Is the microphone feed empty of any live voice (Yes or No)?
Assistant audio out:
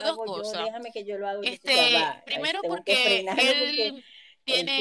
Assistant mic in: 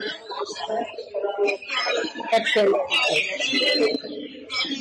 No